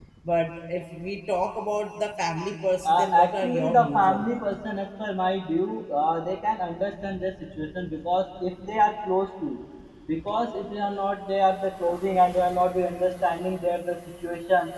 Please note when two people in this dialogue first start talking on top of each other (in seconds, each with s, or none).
2.8 s